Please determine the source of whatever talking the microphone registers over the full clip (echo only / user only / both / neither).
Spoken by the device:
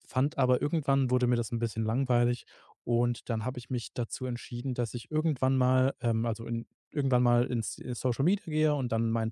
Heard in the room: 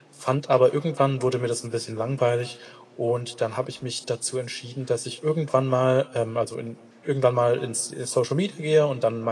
echo only